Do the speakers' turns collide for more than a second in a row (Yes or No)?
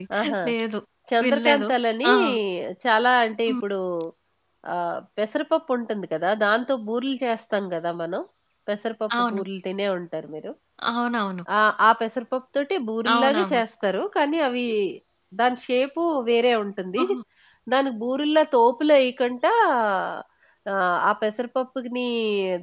No